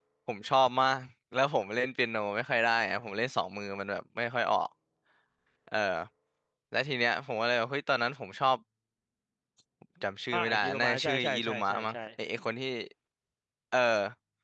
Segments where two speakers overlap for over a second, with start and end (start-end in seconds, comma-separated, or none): 10.3-12.0